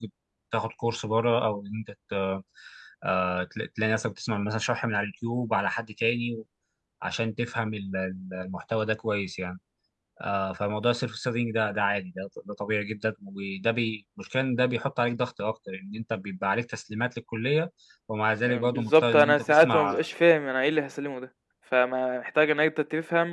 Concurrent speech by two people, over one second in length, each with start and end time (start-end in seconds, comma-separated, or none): 18.5-20.1